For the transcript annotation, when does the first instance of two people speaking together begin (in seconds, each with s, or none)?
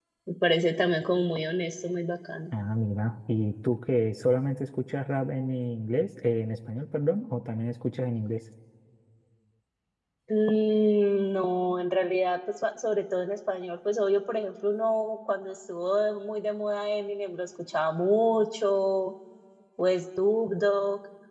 none